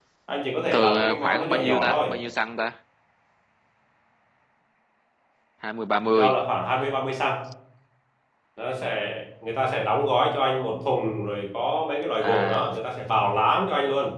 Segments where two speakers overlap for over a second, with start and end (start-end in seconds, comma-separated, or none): 0.7-2.1